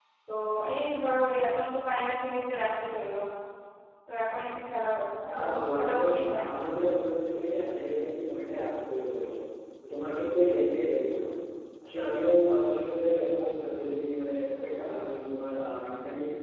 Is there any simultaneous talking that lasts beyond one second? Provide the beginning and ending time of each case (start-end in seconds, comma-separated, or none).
5.3-6.5